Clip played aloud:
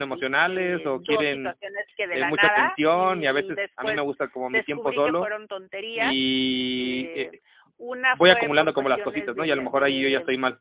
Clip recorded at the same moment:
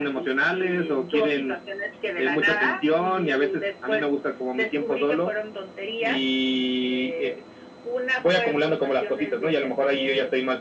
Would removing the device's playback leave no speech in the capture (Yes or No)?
Yes